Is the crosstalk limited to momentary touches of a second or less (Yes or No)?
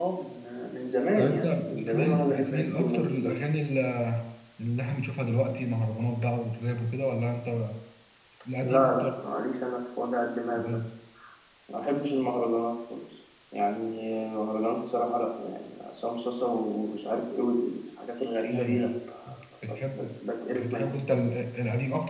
No